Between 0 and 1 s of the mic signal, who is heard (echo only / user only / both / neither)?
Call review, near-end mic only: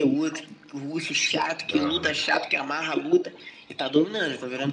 echo only